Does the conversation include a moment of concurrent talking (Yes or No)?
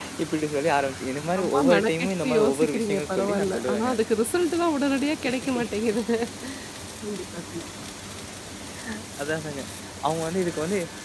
Yes